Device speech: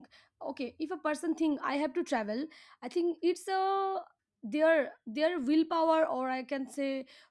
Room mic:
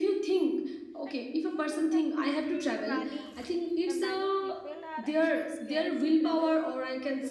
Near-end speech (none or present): present